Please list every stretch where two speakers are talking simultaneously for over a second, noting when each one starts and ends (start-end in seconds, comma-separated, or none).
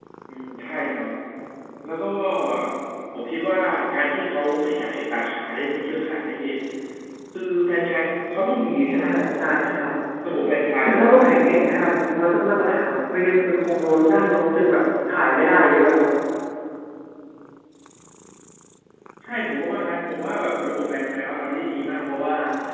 none